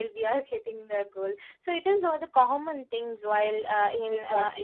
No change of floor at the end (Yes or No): No